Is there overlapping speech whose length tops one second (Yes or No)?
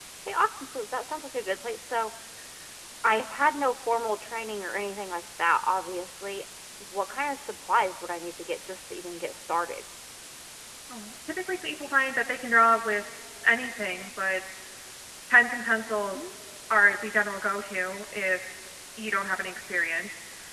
No